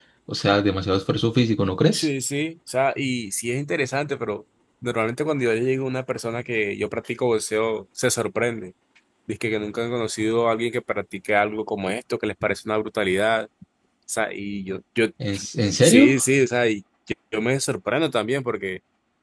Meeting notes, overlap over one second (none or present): none